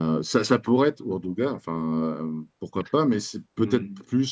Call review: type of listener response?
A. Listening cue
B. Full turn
A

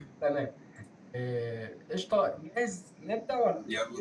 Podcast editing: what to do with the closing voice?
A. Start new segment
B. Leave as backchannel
B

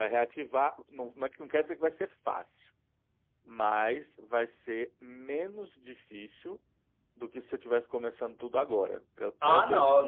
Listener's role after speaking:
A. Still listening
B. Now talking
B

